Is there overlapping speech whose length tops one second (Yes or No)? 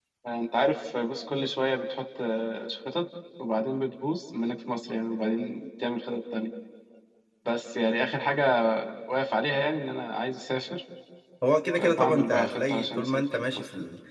Yes